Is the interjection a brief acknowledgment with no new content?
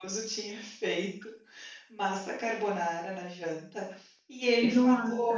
Yes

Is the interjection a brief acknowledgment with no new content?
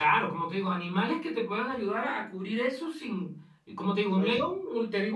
Yes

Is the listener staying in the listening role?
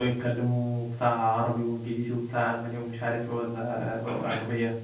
No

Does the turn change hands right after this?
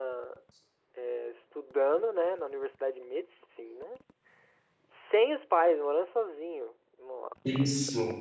No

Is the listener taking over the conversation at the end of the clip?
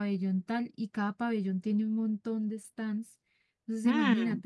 No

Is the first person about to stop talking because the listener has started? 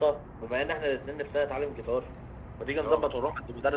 No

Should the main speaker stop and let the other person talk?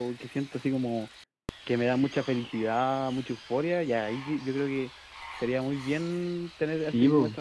Yes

